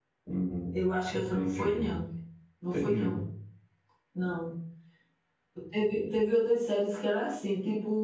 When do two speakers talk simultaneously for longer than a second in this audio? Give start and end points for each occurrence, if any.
0.7-1.9

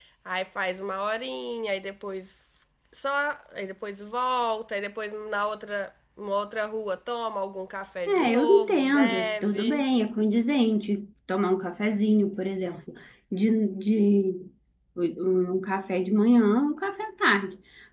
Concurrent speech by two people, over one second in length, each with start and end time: 8.1-9.8

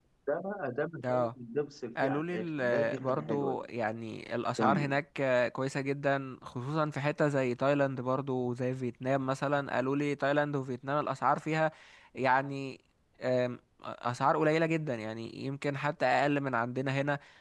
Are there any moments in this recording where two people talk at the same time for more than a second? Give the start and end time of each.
2.0-3.6

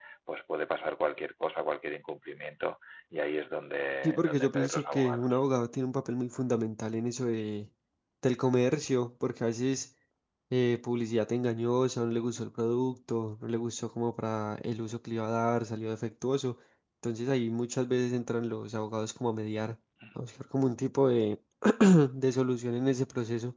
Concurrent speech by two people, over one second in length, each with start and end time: 4.0-5.4

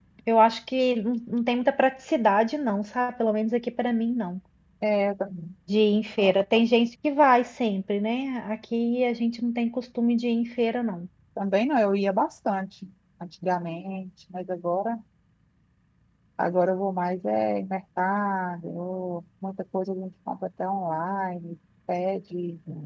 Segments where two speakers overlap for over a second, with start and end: none

